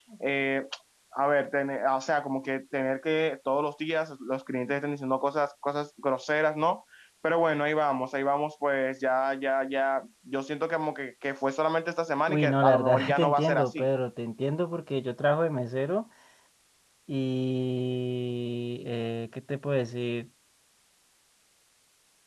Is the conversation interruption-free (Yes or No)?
No